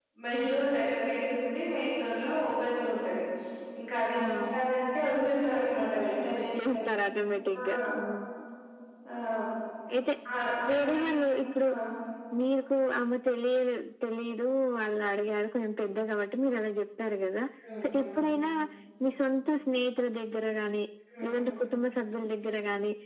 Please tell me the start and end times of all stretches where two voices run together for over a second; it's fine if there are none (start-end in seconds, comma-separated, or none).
none